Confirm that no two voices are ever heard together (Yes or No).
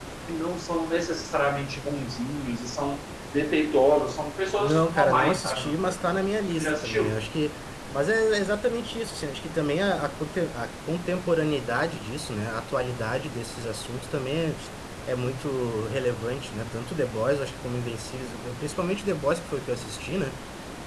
No